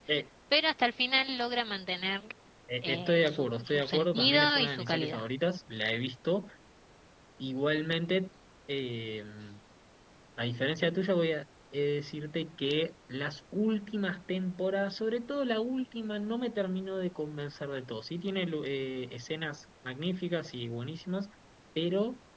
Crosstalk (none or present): present